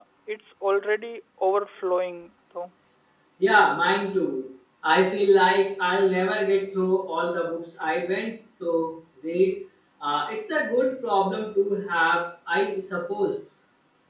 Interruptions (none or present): none